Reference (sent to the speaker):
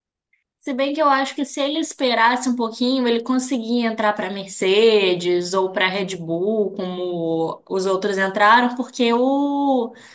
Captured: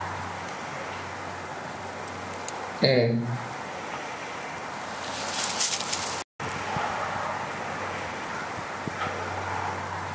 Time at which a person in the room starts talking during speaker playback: 3 s

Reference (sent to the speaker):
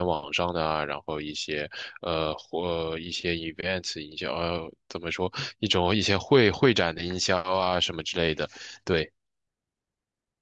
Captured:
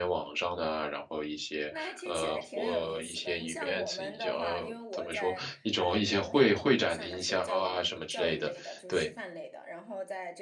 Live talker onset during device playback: 2 s

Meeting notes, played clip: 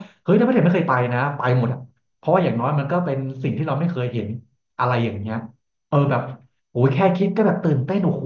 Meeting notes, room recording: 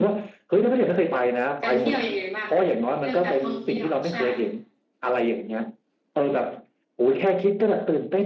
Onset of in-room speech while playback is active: 2 s

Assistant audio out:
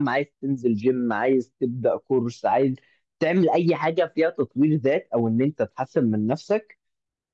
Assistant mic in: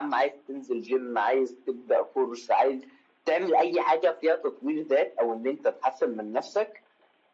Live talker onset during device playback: none

